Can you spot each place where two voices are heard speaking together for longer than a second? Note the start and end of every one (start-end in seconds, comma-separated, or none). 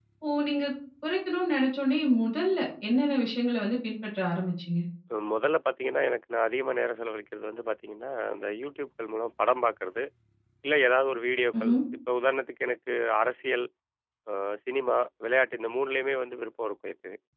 none